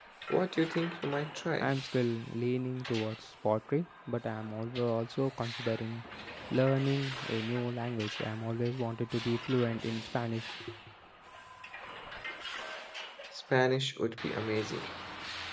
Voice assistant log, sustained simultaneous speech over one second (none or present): none